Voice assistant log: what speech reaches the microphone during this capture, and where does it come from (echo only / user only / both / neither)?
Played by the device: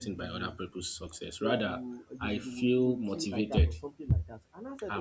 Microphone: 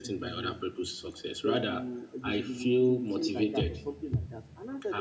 echo only